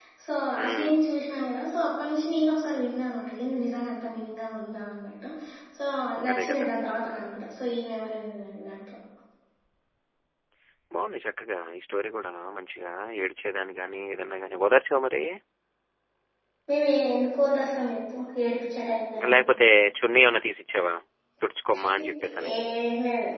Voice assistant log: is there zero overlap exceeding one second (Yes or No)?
Yes